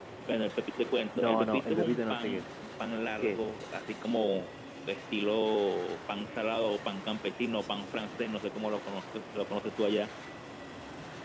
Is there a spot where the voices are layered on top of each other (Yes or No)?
Yes